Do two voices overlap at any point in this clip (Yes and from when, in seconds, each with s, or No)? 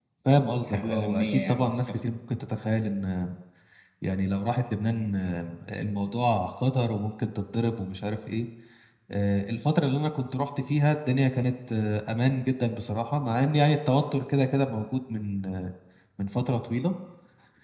Yes, from 0.6 s